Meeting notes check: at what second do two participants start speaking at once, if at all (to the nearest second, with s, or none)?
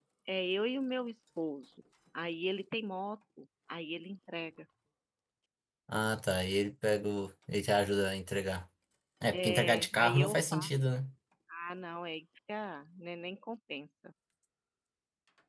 9 s